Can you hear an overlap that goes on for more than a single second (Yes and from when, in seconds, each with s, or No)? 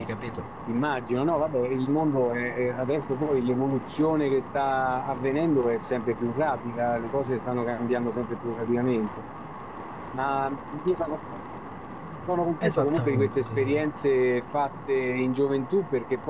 Yes, from 12.6 s